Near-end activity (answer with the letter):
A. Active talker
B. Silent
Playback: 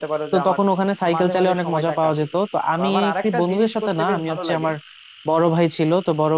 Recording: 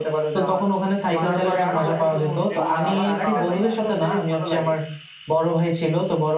A